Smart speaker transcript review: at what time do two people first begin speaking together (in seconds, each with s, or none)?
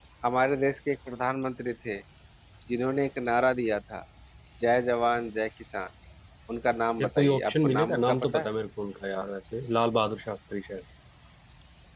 7.0 s